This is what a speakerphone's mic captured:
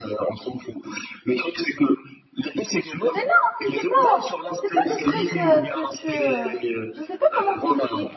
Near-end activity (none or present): present